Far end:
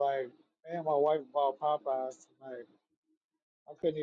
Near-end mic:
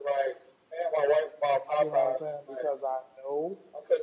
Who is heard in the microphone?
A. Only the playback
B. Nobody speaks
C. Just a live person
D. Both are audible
D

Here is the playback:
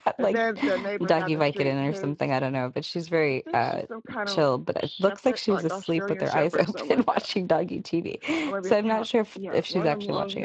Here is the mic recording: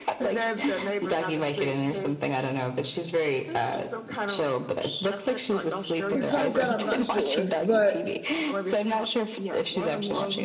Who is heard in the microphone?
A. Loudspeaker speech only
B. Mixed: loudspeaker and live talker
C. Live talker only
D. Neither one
B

